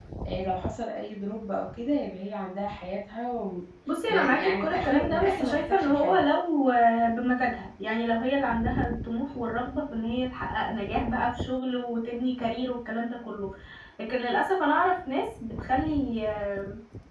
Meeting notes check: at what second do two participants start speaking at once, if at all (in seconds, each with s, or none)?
3.9 s